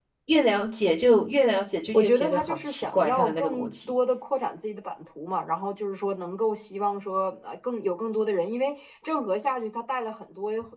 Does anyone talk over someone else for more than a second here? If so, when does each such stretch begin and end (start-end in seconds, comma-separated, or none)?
1.9-3.9